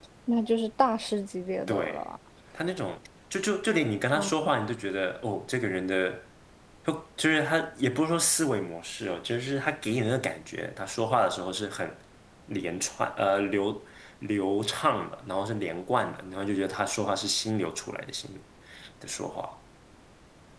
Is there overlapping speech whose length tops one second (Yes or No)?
No